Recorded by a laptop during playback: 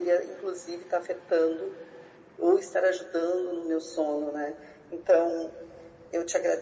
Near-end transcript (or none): none